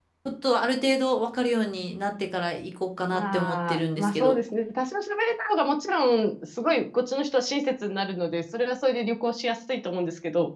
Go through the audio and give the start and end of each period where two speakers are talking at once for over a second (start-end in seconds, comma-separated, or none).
3.1-4.4